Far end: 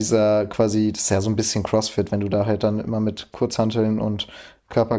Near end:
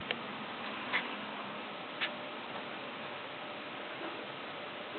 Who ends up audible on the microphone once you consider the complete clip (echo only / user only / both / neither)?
neither